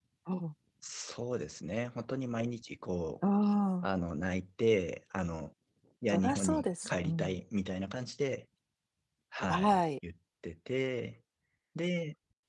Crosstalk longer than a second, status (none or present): present